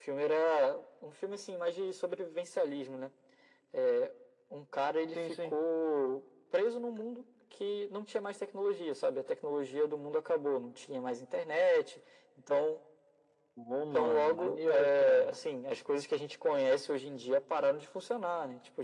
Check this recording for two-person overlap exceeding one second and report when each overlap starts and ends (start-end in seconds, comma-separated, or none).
13.9-15.3